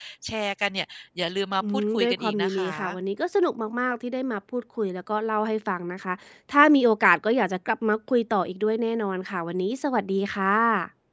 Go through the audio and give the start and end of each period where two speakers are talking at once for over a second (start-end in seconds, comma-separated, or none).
1.7-3.0